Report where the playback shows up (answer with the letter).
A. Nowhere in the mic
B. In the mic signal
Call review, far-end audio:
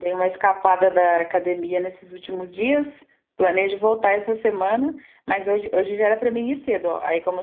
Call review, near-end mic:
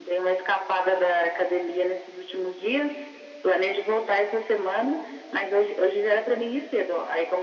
B